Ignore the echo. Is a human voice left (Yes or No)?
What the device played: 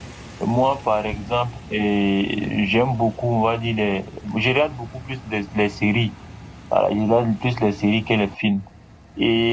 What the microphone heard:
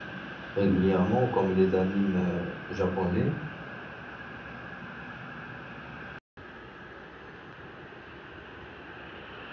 Yes